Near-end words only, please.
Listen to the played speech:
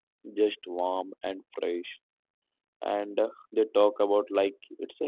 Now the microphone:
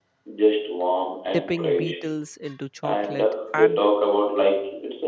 dipping beetles into chocolate, and

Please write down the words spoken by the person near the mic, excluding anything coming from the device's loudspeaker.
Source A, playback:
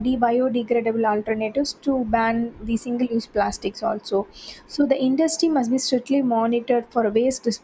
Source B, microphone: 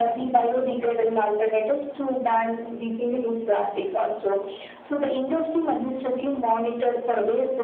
none

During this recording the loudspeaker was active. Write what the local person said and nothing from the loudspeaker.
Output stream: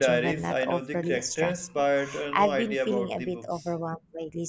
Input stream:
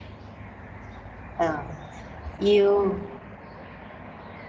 um, you

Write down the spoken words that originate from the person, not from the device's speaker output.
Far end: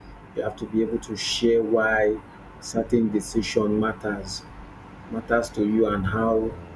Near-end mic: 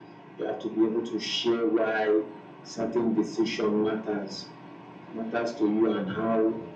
none

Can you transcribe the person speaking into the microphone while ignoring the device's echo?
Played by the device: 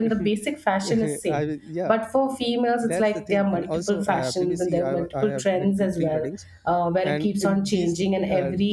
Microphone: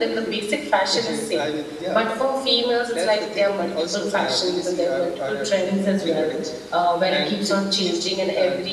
none

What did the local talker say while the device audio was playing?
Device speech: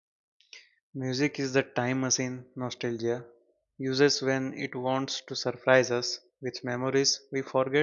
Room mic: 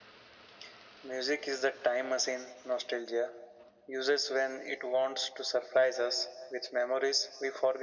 none

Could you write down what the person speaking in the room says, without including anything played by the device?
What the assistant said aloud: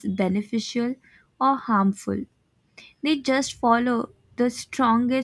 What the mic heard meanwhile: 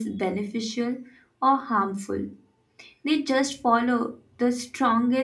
none

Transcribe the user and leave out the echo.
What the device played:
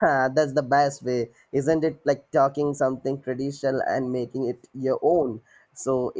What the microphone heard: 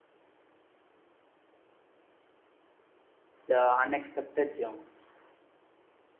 The unexpected gems.

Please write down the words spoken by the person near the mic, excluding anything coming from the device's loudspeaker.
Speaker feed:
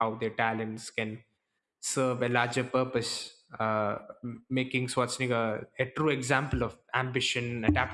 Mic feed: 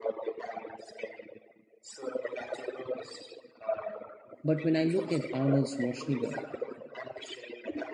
but when i look at arnold schwarzenegger

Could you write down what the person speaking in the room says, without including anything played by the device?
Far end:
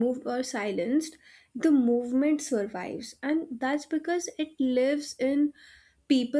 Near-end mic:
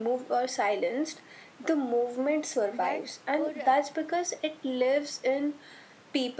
but for uh,

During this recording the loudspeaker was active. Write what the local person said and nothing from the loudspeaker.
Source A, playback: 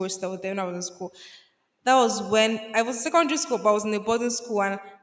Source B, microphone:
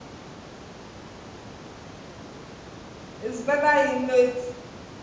It's better you know it.

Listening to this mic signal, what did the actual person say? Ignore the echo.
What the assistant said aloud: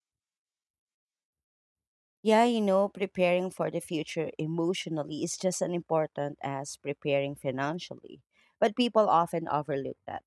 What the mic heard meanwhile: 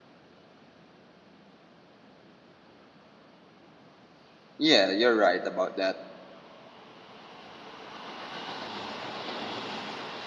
Yeah, you're right about that.

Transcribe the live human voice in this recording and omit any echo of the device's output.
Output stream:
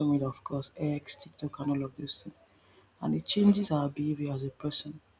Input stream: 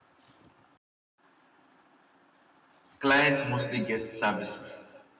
Clients mostly get services

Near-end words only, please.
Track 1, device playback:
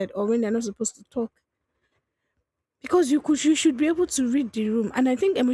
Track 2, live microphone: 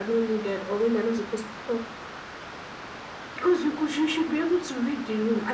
none

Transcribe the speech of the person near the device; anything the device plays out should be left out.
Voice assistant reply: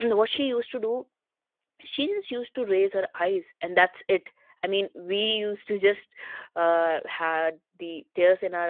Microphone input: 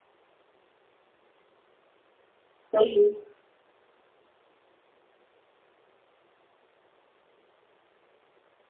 Mhm.

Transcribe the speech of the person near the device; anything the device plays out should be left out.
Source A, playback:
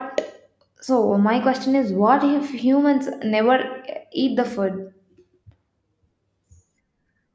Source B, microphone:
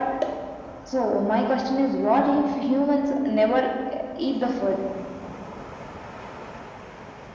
none

